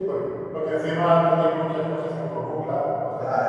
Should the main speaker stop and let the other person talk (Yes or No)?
Yes